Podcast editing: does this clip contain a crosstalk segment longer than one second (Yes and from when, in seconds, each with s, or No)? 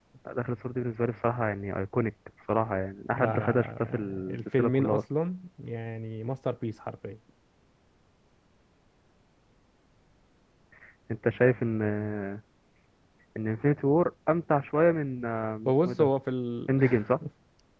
Yes, from 3.1 s